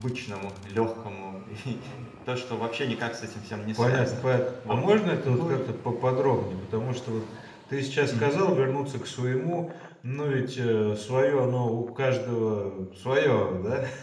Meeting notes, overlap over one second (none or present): none